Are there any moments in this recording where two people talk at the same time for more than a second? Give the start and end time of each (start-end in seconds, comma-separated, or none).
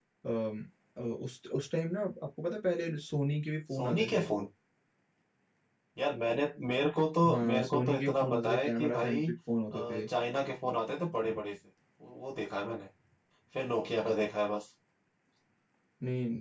7.2-9.2